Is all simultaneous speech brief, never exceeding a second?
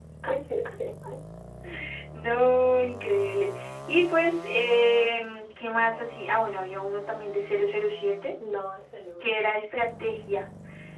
Yes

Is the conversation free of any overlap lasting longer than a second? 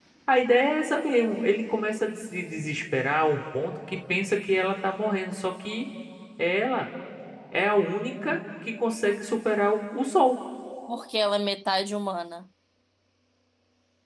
Yes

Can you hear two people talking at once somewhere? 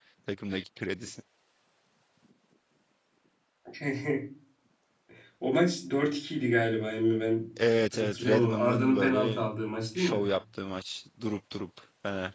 Yes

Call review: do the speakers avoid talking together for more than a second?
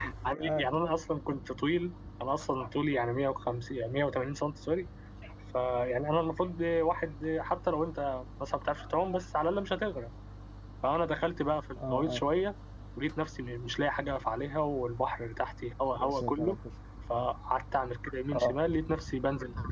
Yes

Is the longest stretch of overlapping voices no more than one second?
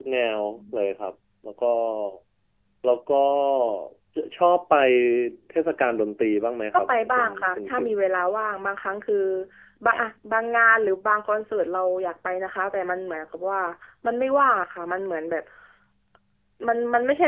No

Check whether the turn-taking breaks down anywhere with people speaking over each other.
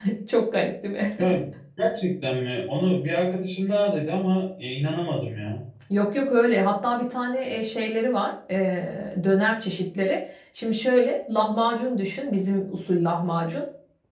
No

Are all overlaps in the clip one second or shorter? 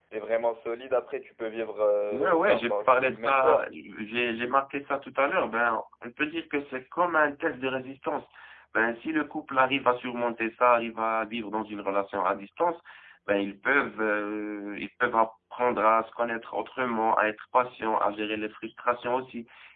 No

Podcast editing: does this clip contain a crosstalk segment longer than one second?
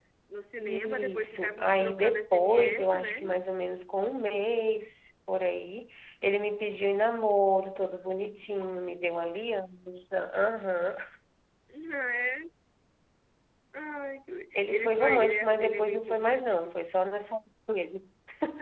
Yes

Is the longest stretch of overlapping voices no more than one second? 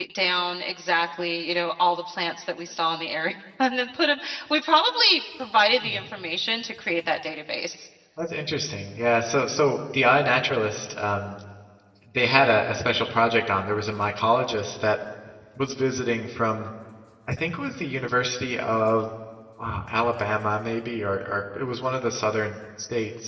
Yes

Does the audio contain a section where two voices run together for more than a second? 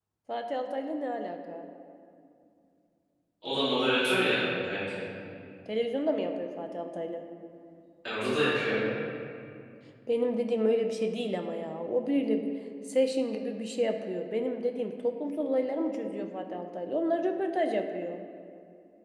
No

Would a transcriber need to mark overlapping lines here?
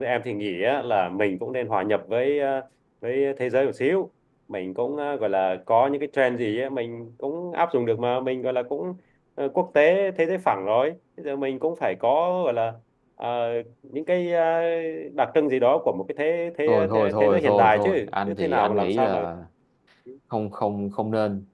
Yes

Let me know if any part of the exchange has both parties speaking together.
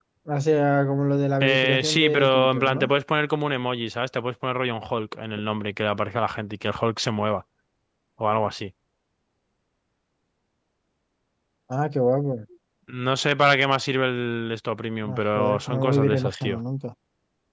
Yes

